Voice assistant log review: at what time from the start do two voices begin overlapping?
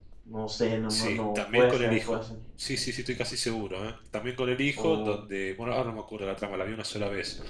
0.9 s

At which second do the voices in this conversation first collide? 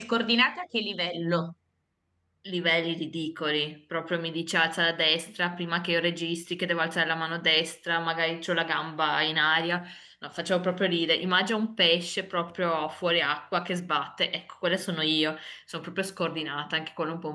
none

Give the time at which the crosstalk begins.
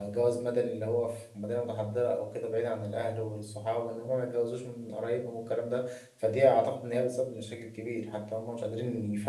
none

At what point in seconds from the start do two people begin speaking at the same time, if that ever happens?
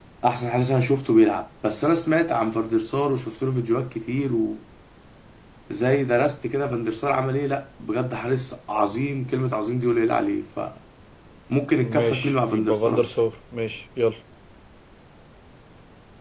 11.8 s

